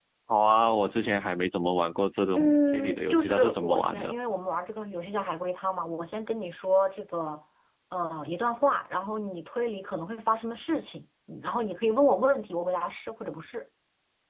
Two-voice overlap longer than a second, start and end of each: 2.3-4.2

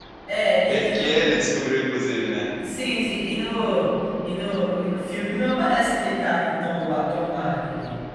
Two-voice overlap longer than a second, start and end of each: none

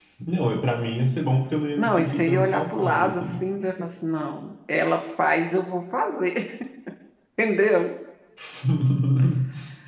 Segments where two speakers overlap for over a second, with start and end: 1.8-3.4

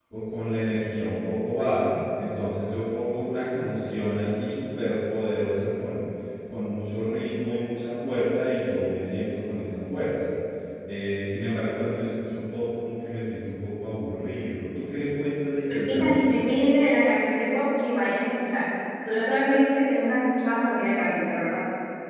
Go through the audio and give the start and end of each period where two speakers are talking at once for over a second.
none

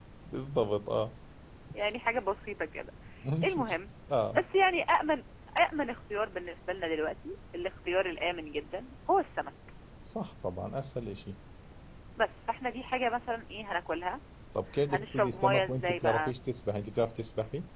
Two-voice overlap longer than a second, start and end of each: 14.9-16.3

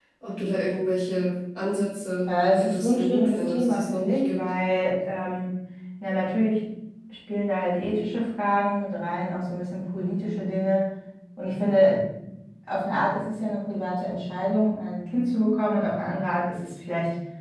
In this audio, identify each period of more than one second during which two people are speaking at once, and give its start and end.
2.3-4.5

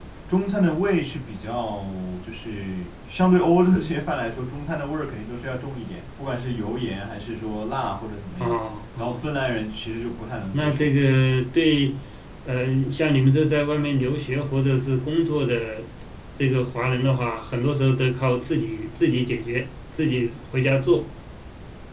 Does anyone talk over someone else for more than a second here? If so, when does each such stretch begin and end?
none

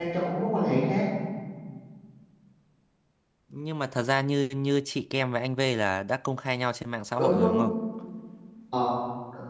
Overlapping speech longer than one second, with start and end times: none

